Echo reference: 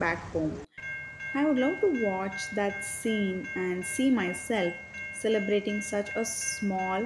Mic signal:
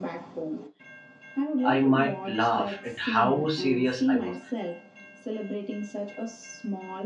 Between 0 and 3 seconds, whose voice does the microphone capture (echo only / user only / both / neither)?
both